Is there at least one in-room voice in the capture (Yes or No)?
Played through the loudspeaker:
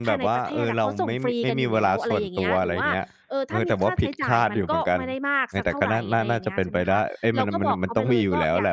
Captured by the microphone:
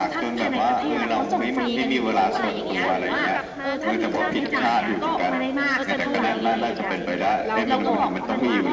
Yes